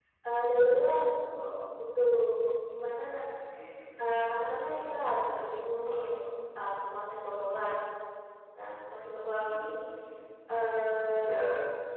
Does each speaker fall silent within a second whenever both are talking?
Yes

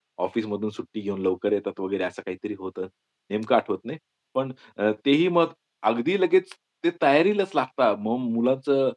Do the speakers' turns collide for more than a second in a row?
No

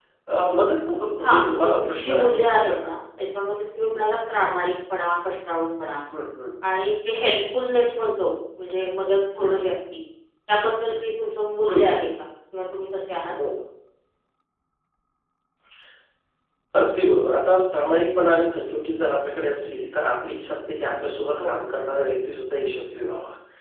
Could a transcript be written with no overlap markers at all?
No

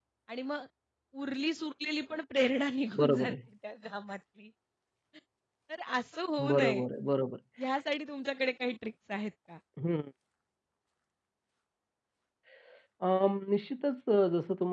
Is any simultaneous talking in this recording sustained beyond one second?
No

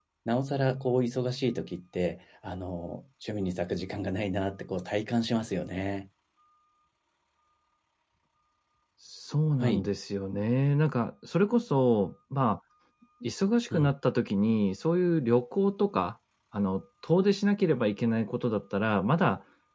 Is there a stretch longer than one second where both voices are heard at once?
No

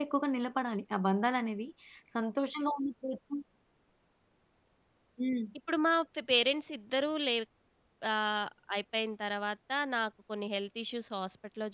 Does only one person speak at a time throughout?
Yes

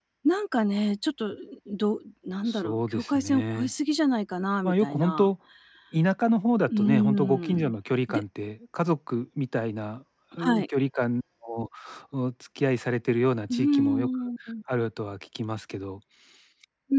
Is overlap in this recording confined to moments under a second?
No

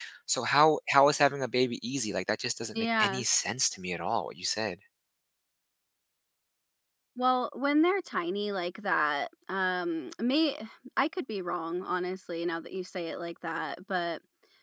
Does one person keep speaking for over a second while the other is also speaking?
No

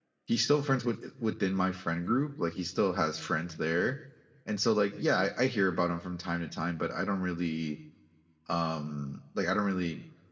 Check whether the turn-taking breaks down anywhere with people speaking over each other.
No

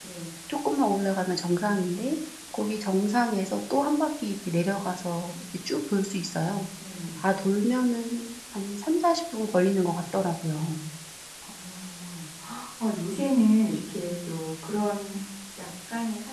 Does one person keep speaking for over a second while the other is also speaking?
No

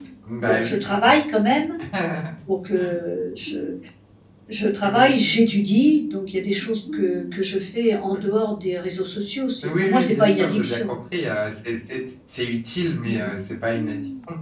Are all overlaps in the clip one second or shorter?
No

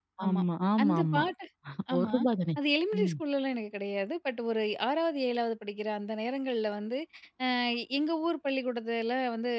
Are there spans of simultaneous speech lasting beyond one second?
No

